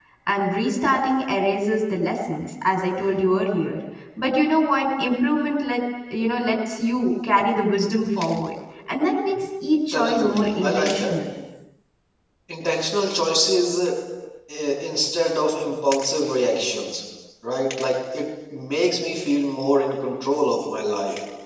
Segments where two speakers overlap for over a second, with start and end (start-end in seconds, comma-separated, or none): 9.9-11.1